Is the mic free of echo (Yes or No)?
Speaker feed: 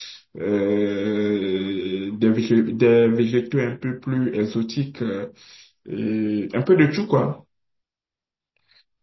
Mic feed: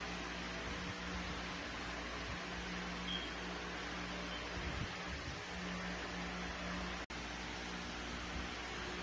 Yes